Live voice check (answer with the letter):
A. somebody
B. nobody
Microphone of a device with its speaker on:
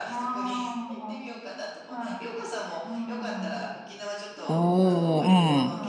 A